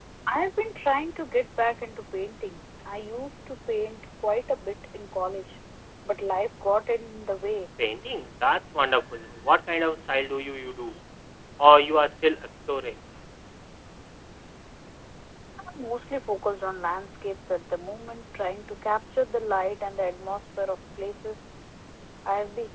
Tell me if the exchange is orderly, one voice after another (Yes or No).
Yes